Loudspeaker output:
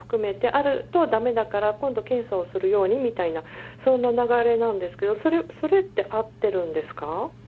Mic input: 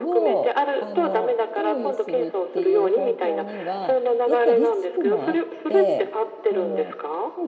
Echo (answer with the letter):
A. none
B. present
B